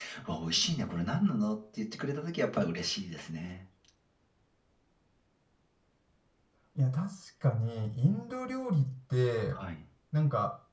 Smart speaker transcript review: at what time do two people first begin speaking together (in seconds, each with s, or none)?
none